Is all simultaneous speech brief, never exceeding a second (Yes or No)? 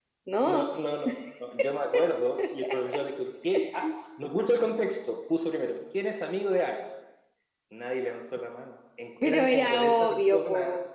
No